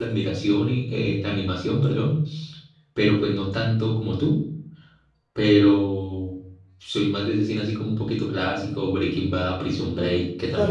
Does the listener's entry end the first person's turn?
Yes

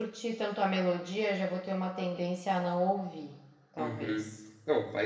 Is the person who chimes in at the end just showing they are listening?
No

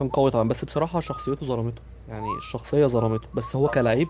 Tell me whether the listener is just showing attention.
No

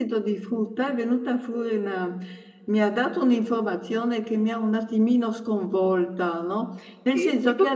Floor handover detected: No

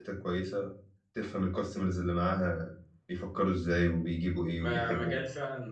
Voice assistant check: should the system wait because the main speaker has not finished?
No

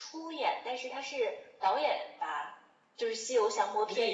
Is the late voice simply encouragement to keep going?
No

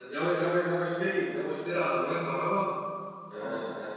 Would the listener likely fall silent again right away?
Yes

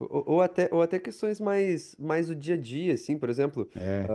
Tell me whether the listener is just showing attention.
Yes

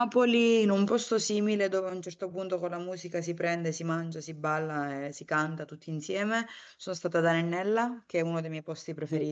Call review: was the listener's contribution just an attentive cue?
Yes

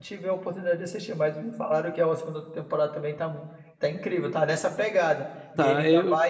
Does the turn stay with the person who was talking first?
Yes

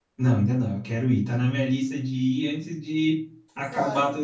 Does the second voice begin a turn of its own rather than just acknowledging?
No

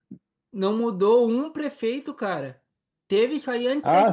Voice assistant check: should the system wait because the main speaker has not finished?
No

